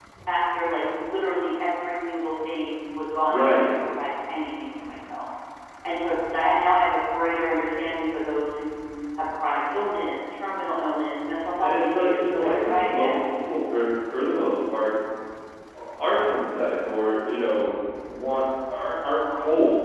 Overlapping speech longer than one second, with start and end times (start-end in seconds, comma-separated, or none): 11.6-13.2